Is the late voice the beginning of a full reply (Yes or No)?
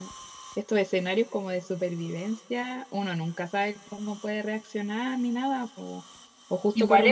No